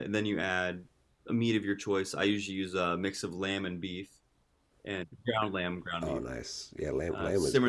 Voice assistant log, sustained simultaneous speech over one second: none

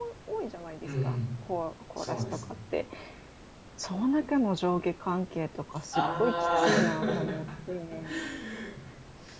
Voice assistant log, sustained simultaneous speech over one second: present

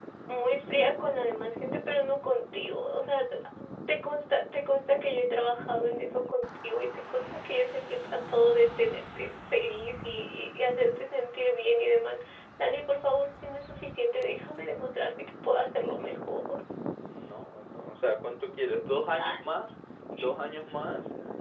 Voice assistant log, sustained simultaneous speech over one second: none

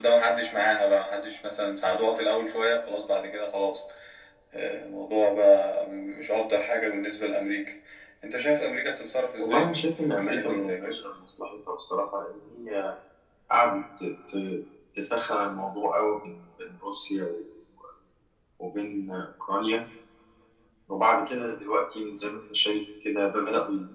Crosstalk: present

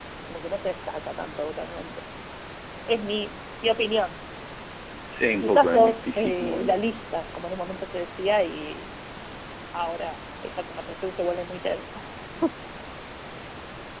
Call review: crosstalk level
present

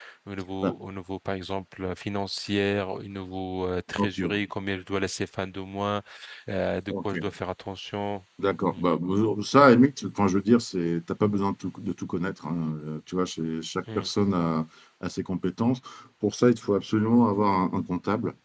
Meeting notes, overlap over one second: none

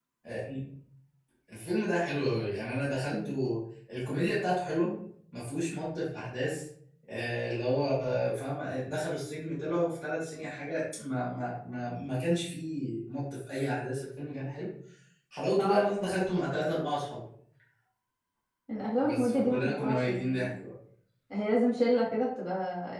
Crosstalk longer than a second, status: present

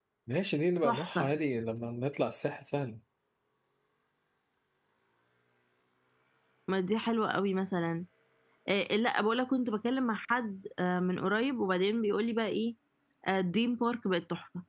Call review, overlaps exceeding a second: none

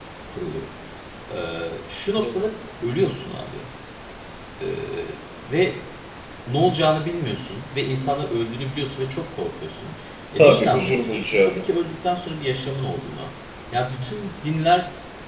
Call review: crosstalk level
present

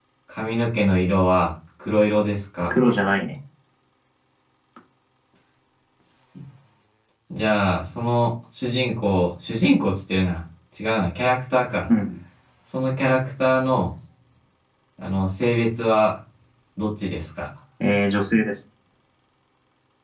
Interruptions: none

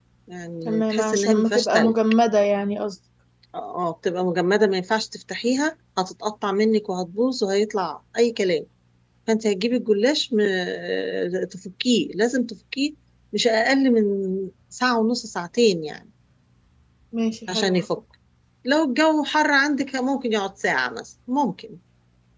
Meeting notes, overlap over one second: present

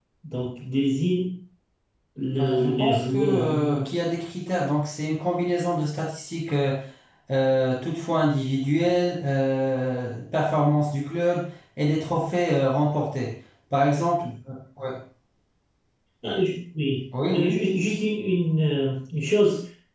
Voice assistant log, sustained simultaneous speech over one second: present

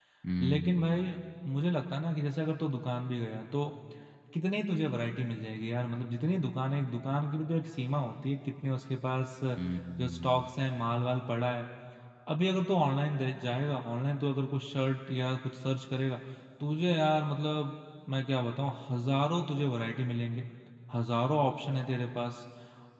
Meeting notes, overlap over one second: none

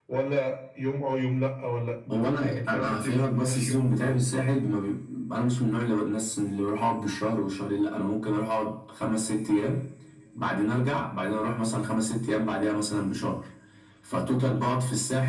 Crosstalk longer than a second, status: present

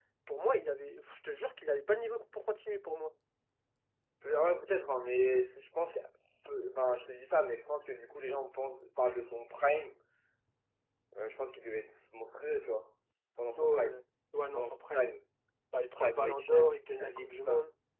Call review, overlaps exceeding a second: present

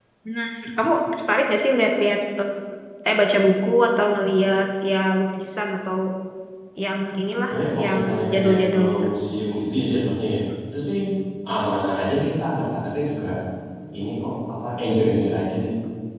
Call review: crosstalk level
present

